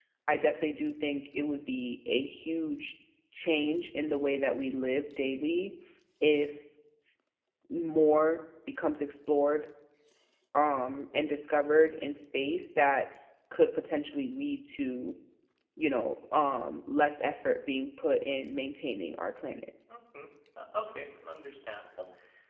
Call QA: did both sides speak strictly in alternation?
Yes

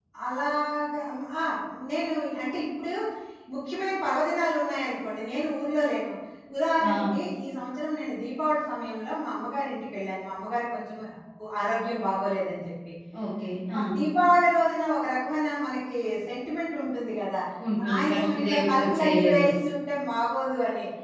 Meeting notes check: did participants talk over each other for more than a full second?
Yes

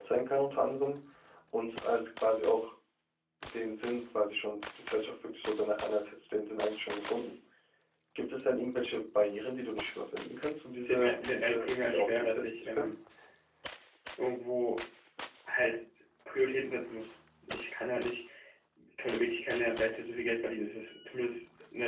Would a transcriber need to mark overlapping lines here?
Yes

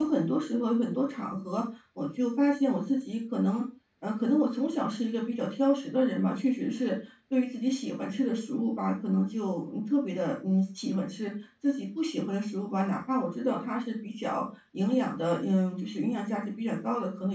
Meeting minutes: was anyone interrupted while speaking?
No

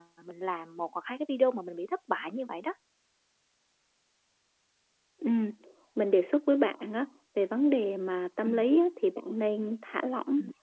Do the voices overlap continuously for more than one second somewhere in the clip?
No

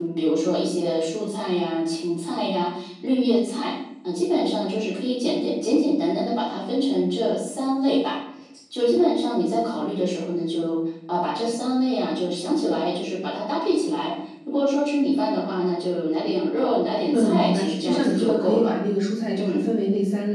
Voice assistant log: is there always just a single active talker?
No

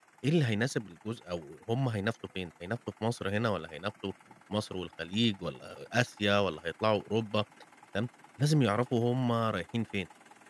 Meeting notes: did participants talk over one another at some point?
No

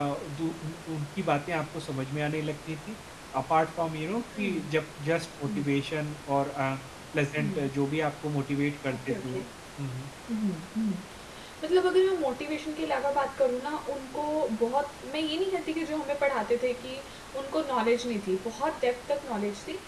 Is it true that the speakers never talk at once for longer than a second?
Yes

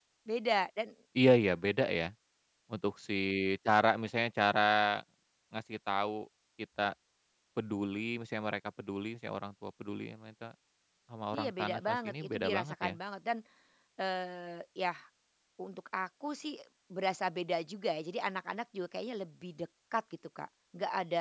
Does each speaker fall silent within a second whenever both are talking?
No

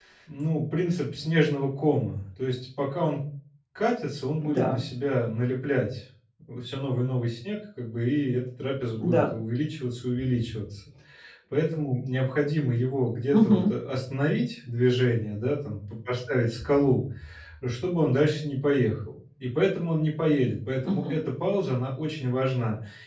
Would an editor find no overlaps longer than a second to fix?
Yes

